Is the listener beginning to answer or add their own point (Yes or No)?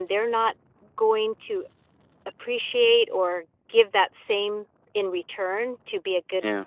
No